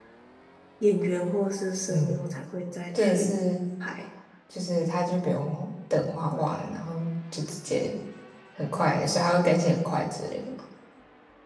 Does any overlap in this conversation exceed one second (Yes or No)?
No